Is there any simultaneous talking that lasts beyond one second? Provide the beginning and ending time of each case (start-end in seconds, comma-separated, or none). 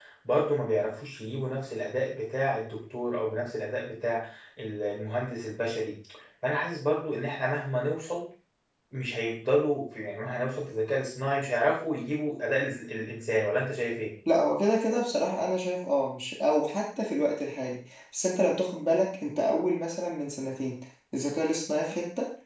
none